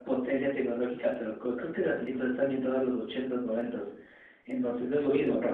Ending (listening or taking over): listening